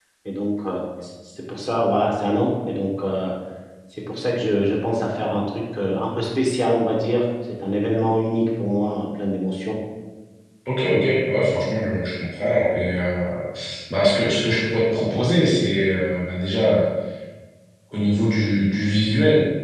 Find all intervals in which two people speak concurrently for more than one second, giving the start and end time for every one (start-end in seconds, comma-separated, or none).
none